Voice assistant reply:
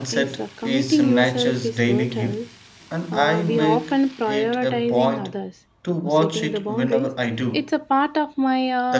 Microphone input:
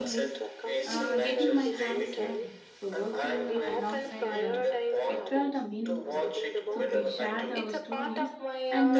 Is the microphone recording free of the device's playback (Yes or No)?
No